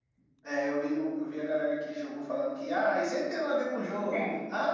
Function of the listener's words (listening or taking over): listening